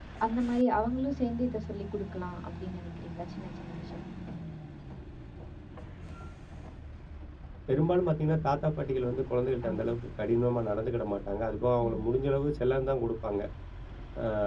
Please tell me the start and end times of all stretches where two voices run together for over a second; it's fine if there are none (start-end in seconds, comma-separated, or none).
none